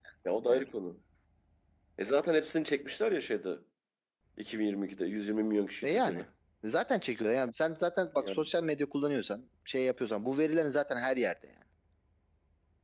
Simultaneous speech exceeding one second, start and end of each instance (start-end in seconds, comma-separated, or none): none